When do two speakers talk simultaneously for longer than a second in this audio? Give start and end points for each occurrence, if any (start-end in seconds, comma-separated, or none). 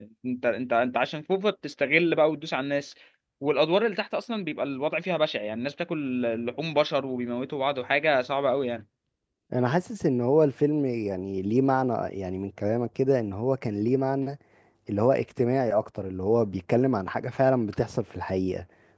none